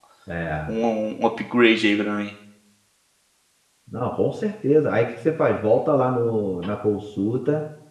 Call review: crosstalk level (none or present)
none